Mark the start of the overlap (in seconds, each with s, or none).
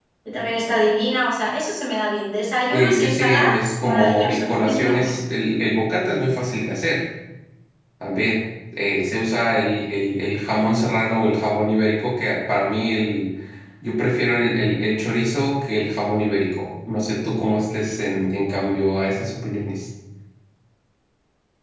2.7 s